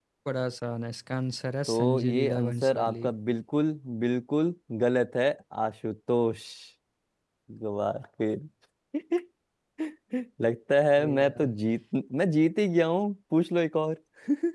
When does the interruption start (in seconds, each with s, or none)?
1.7 s